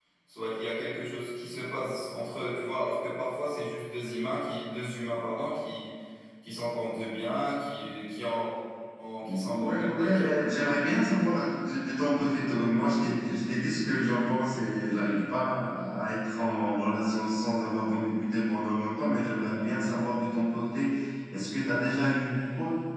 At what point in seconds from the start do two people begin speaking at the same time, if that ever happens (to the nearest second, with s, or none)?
9 s